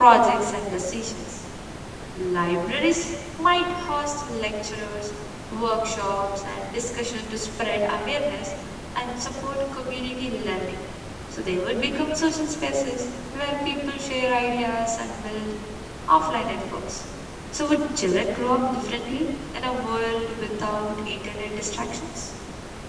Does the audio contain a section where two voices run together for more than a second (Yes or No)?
No